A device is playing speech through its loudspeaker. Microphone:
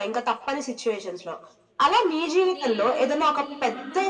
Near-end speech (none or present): present